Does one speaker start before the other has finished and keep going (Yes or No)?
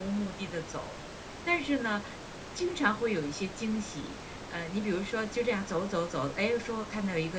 No